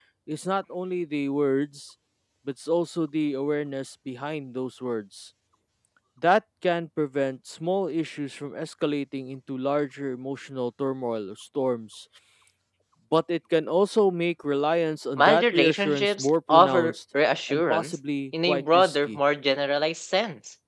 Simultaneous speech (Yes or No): Yes